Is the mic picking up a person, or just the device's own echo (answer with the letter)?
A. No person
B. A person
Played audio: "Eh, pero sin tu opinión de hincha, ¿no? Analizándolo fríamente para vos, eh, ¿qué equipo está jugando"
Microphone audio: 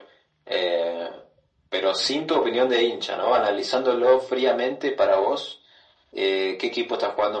A